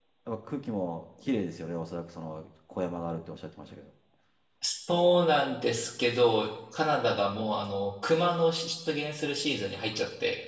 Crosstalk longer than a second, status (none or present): none